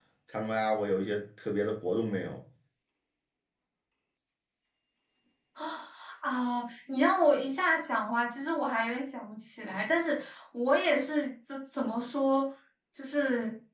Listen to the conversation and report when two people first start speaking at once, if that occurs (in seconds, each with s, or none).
none